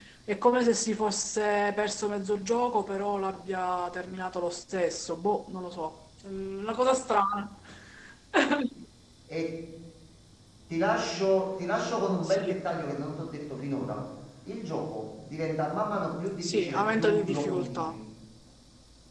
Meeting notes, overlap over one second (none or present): present